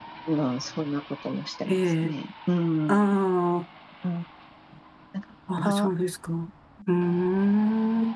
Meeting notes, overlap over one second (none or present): none